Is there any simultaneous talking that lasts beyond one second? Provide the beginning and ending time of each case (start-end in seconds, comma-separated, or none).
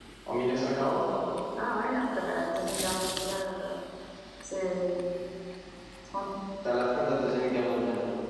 none